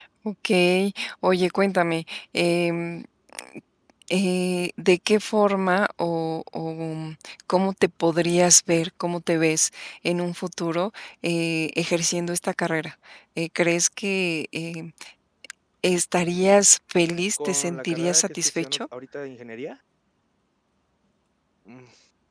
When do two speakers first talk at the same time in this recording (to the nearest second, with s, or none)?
17 s